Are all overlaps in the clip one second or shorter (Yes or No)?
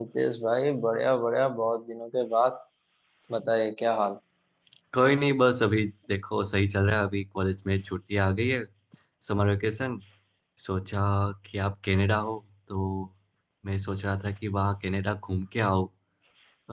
Yes